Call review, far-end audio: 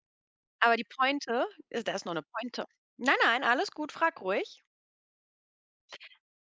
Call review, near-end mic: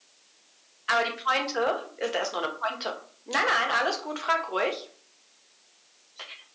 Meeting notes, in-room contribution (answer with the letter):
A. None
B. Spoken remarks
A